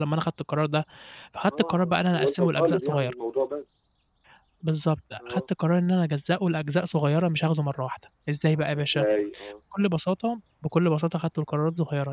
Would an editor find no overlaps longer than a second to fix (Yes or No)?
No